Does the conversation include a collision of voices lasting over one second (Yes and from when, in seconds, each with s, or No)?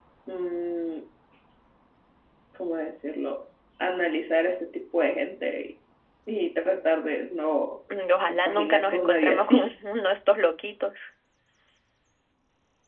Yes, from 8.3 s